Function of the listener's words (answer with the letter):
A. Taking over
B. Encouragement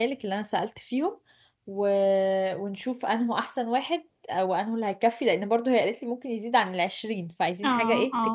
A